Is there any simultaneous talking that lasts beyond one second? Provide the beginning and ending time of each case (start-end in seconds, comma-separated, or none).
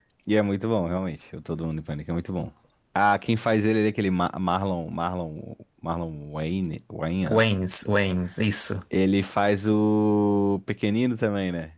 none